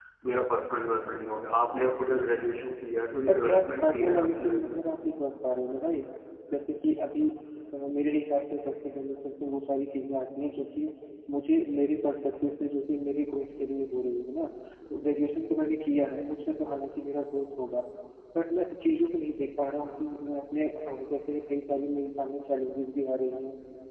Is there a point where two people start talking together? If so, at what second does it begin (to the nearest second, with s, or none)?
3 s